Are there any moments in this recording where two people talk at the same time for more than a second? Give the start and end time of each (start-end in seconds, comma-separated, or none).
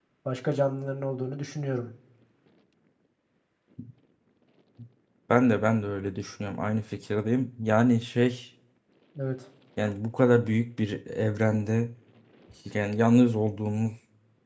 none